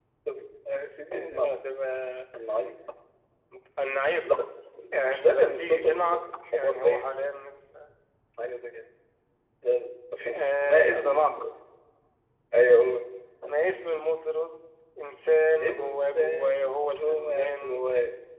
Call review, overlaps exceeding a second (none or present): present